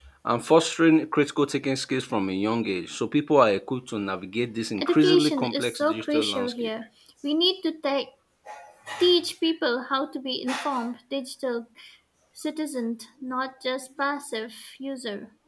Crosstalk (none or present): present